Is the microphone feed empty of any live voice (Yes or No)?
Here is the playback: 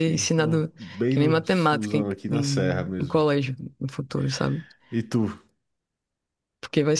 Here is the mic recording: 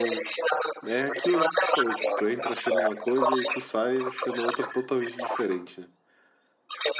No